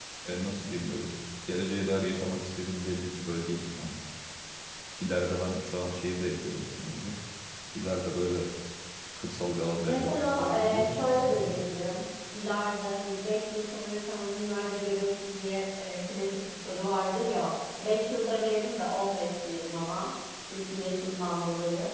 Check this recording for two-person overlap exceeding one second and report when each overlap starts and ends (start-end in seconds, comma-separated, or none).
9.8-11.4